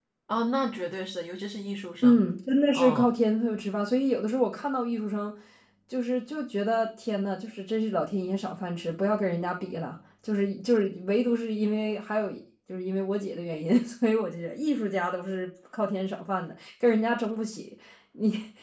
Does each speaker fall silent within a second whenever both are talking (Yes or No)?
Yes